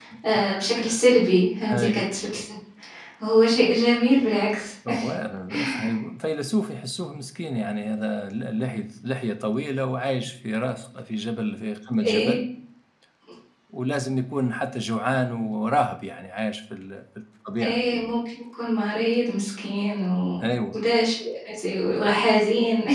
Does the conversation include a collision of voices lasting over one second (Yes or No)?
No